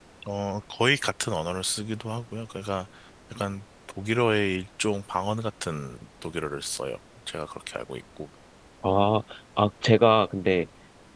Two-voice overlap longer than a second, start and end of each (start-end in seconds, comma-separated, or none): none